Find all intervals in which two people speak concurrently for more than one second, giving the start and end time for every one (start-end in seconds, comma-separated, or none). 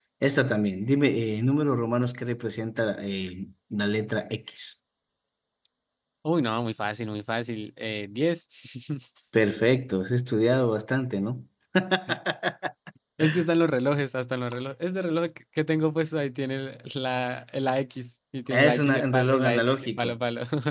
18.5-20.1